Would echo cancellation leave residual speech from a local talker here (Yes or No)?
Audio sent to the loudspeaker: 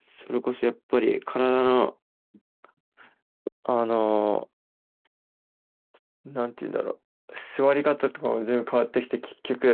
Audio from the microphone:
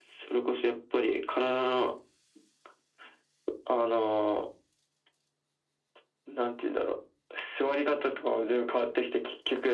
No